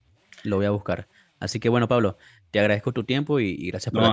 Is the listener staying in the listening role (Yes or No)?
No